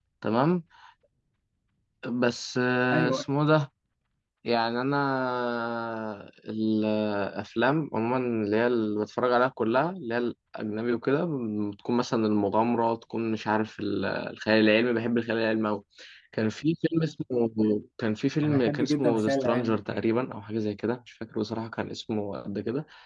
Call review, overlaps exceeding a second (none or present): present